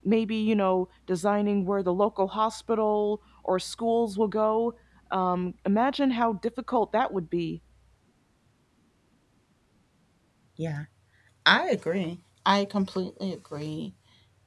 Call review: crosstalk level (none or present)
none